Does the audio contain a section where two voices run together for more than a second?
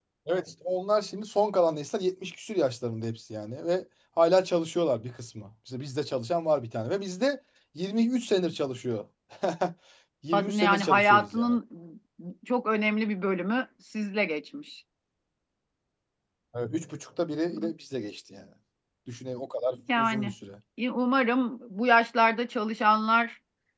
Yes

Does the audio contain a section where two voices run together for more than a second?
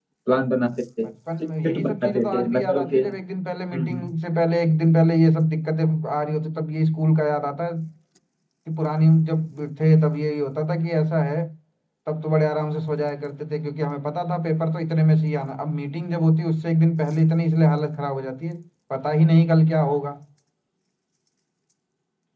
Yes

